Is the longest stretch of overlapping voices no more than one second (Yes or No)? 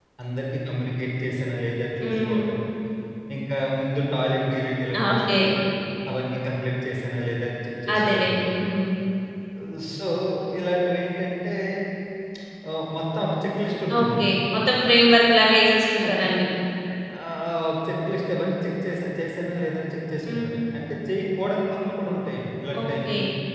Yes